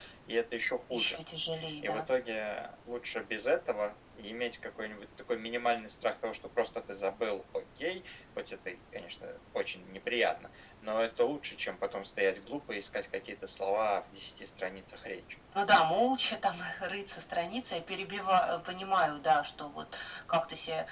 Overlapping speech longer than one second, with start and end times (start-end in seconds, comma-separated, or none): none